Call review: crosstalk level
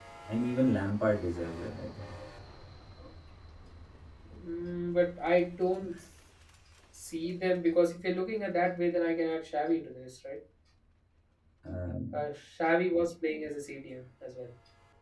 none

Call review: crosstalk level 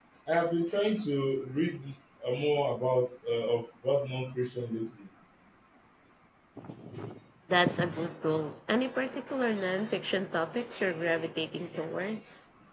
none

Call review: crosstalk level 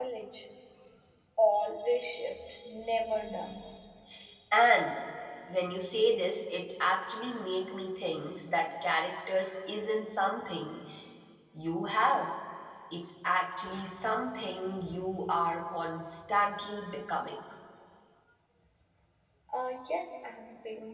none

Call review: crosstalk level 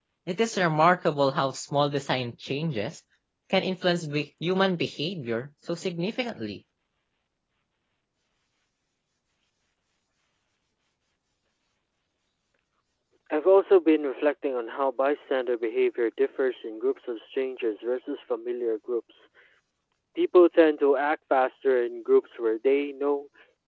none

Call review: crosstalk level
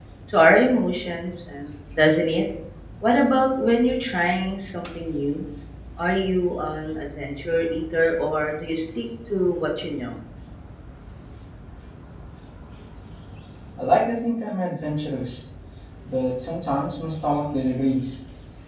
none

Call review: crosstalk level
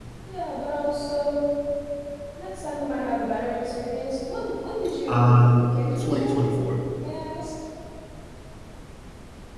present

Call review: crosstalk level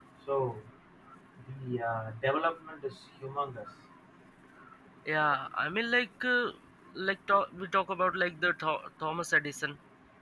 none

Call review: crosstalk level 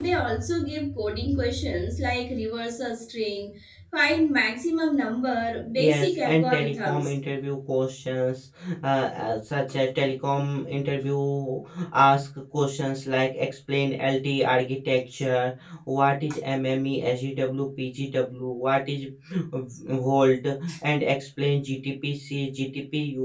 present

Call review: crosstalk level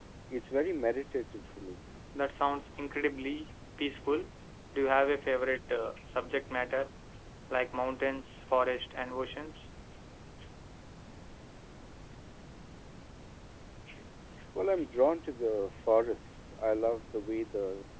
none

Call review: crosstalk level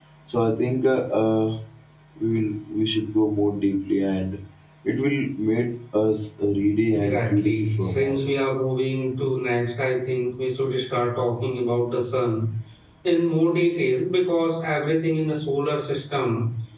present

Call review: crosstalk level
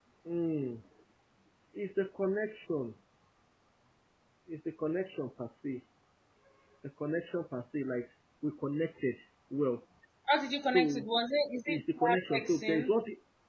present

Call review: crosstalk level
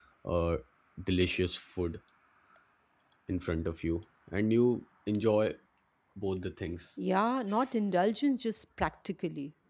none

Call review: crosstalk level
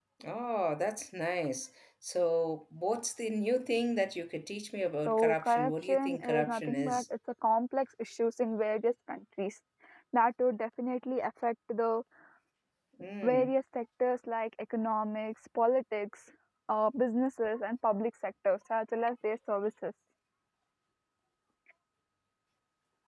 present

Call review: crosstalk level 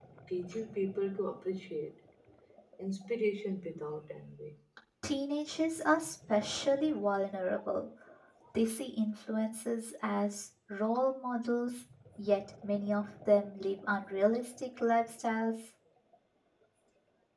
none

